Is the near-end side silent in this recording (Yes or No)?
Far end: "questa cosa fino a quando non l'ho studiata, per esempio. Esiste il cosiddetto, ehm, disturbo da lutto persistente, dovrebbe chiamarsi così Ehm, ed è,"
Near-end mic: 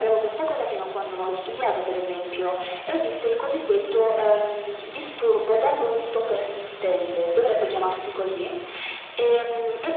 Yes